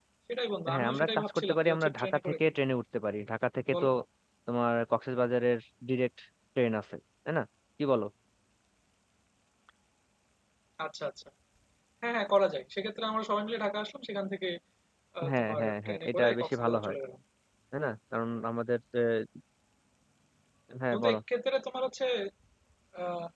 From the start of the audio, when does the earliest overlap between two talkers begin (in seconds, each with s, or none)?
0.7 s